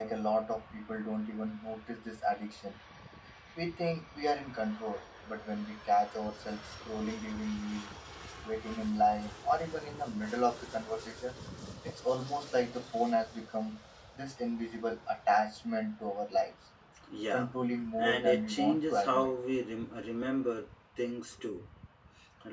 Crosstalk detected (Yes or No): Yes